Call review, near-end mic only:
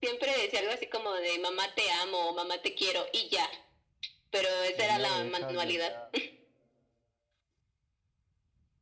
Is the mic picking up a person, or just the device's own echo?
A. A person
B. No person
A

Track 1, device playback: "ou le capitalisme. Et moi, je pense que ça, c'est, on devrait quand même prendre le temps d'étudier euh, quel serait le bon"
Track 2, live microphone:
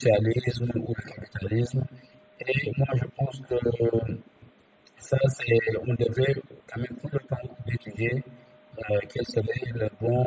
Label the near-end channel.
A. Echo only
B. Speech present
A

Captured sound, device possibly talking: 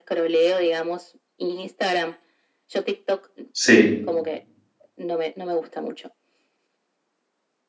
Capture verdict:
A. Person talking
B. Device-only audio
A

